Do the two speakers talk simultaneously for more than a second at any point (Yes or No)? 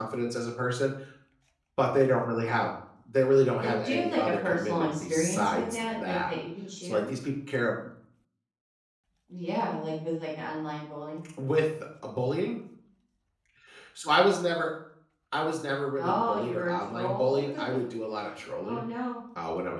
Yes